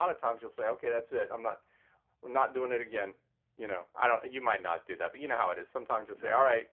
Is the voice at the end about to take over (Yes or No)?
No